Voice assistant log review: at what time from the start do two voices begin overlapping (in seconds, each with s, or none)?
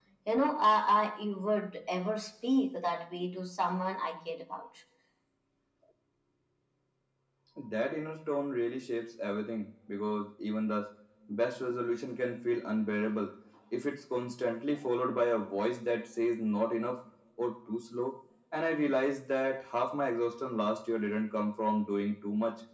none